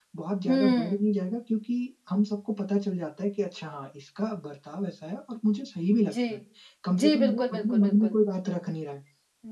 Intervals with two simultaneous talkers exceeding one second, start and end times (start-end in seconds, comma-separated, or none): 6.9-8.2